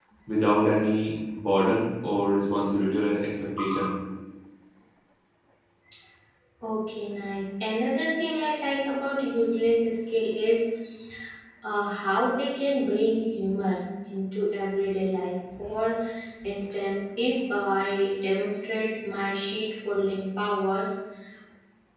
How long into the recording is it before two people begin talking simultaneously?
none

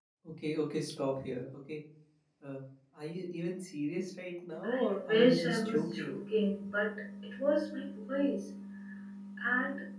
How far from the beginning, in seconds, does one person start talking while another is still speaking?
4.6 s

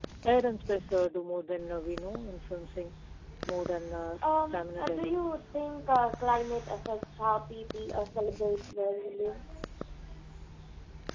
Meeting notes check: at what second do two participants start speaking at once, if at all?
4.2 s

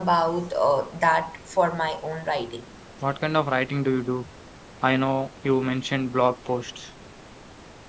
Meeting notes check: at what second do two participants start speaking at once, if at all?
none

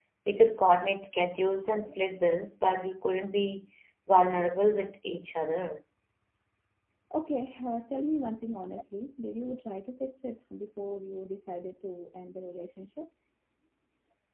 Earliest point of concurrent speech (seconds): none

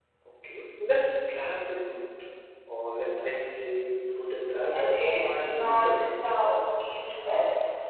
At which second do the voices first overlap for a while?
4.7 s

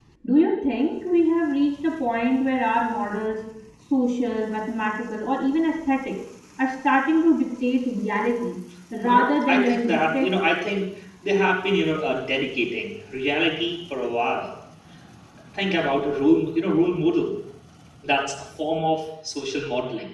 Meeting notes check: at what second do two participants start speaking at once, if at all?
9.0 s

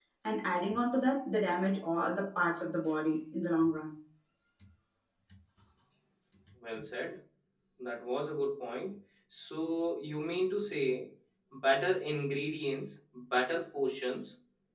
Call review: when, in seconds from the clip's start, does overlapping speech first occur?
none

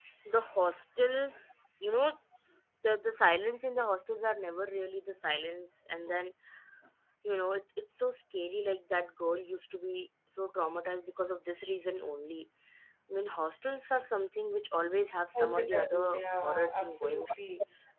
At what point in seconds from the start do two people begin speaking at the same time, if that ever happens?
15.3 s

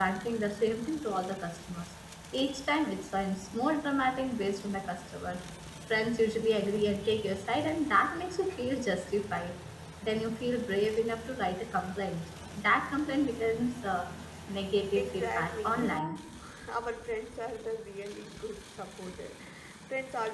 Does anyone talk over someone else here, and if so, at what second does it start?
14.9 s

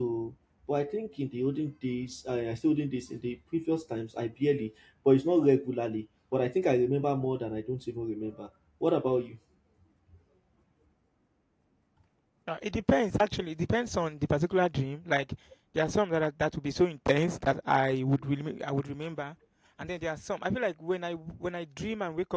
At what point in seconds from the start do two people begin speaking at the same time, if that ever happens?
none

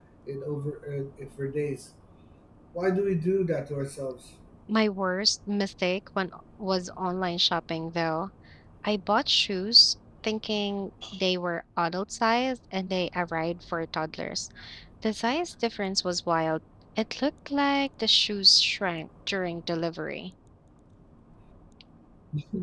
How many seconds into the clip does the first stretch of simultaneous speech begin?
none

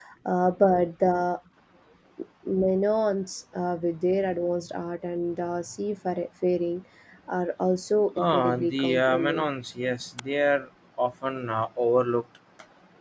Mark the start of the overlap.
8.2 s

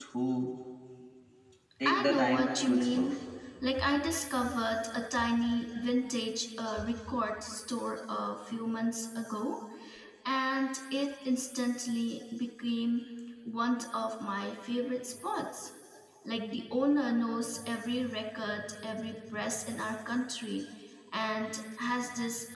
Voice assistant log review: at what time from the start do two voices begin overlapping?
1.8 s

